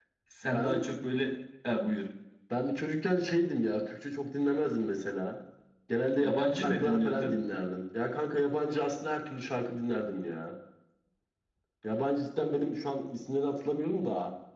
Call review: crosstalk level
present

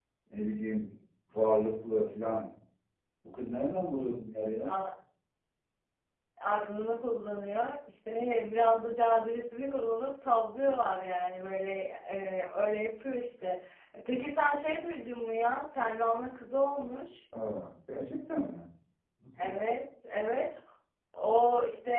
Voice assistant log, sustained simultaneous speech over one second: none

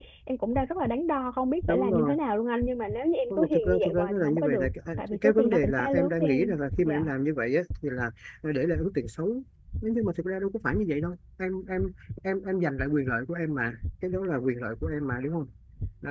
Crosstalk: present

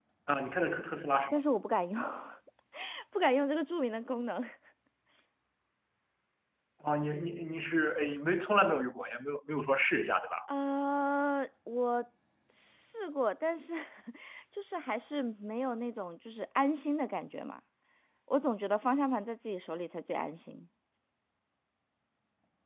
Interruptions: none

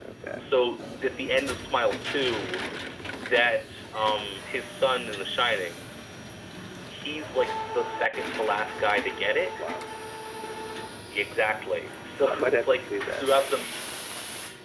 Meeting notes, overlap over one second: present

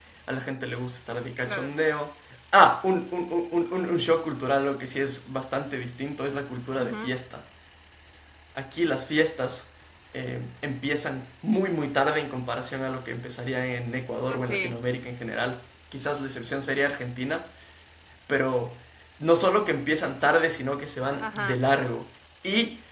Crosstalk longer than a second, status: none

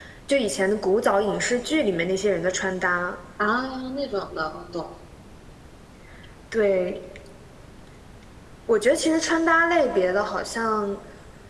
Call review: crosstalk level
none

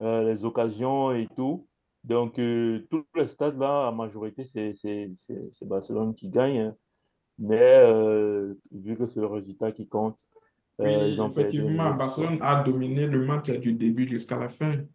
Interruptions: present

